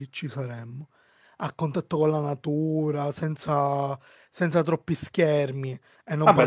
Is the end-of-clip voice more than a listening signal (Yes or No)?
Yes